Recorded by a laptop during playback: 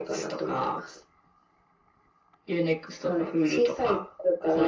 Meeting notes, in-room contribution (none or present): none